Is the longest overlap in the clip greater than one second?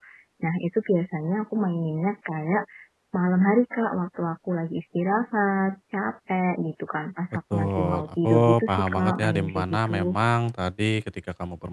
Yes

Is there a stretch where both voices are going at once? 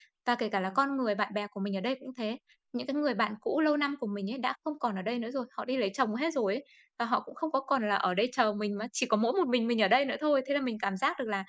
No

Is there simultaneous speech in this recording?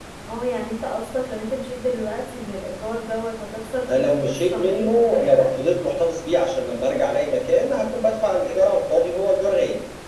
Yes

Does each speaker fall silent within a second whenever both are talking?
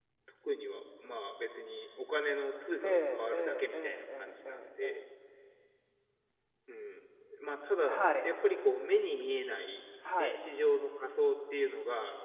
No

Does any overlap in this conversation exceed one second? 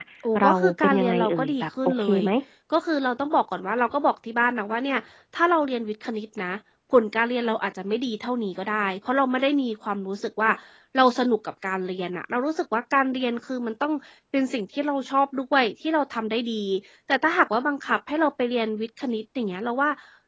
Yes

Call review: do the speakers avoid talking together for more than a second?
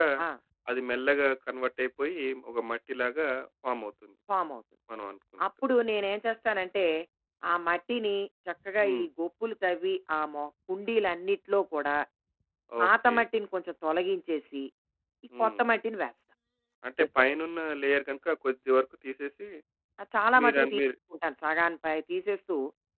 Yes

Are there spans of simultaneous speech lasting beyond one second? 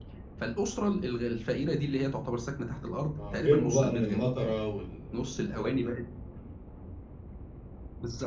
Yes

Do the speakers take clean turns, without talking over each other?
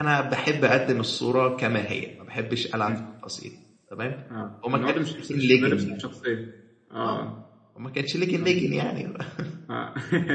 No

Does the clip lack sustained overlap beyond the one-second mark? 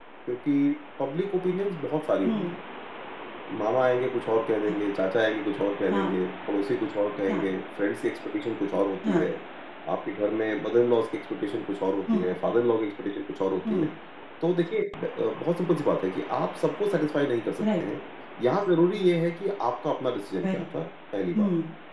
Yes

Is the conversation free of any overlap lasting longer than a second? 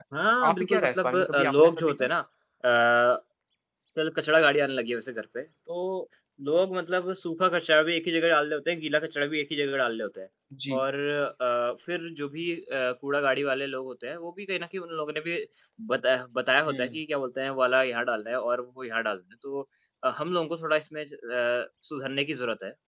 No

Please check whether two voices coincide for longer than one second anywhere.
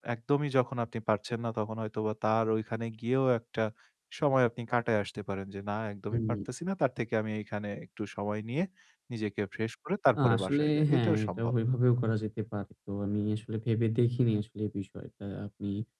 Yes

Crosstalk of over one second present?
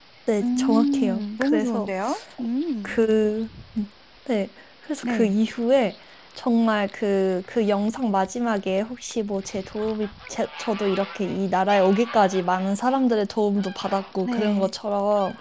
Yes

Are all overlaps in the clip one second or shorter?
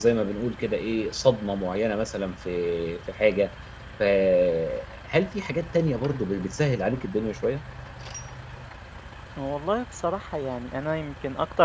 Yes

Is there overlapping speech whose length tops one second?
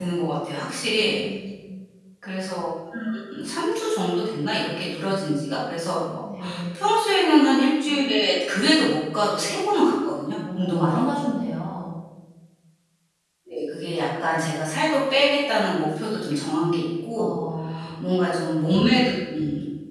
No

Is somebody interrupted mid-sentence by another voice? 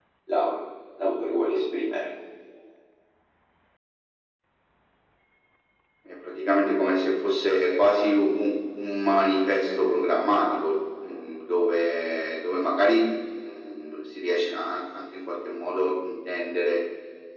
No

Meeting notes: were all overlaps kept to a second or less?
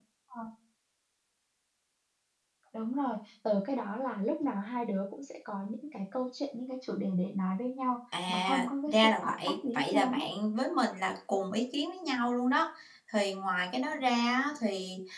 No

